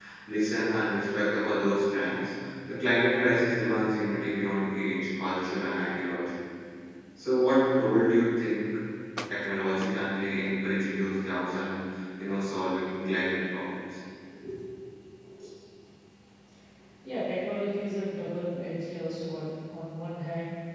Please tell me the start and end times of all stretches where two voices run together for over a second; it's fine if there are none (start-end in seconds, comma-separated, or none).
none